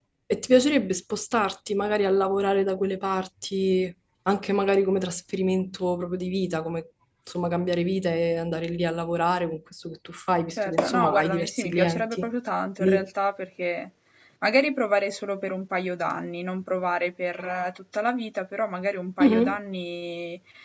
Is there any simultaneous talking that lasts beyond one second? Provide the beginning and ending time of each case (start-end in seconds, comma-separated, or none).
10.5-12.3